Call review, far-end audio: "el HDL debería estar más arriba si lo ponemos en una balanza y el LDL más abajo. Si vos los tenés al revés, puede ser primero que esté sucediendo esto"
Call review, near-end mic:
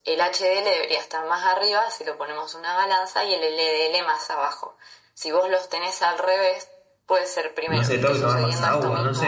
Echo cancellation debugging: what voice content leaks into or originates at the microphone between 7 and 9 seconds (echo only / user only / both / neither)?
both